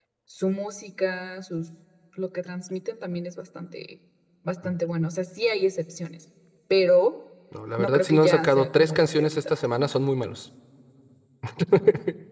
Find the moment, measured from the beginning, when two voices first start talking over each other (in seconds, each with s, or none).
7.8 s